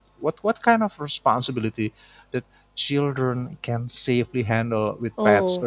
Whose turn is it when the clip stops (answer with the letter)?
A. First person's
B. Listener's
B